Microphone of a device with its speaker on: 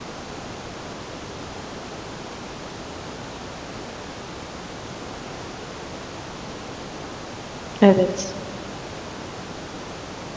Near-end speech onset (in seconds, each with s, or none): 7.8 s